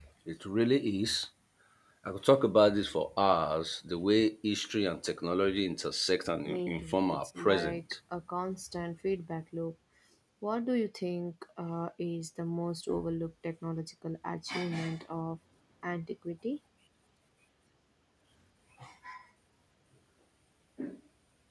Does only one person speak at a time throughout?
No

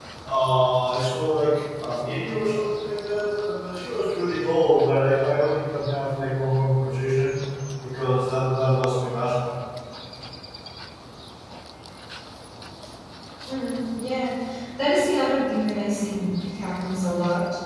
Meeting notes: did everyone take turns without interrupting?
Yes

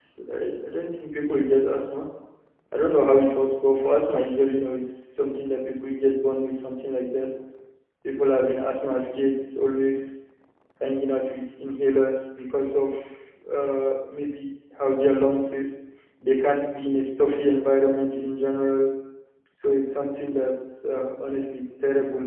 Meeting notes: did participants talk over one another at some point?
No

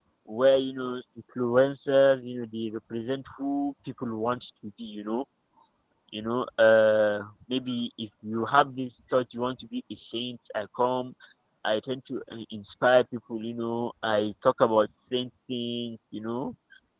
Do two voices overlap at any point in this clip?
No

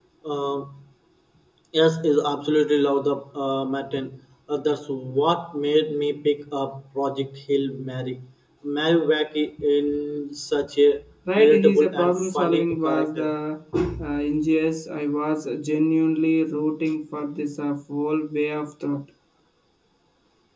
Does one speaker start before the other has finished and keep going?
Yes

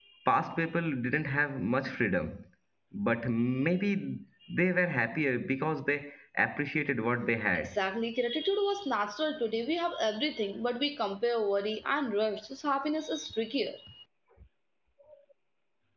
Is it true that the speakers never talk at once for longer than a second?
Yes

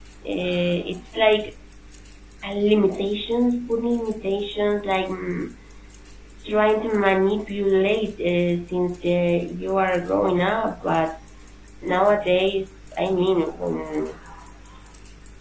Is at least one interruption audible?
No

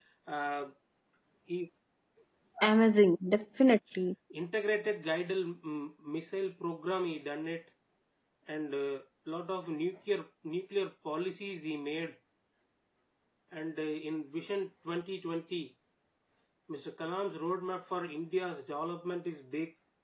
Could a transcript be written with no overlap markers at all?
Yes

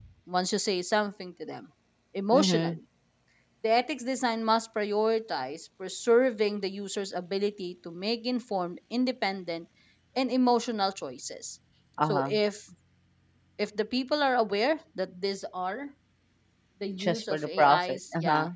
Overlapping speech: Yes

